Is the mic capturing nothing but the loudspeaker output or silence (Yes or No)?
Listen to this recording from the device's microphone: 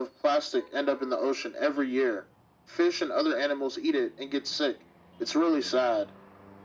Yes